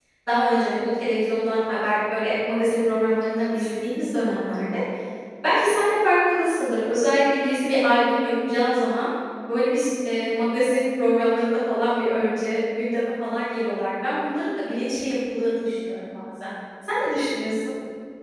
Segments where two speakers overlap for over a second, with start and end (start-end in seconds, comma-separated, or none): none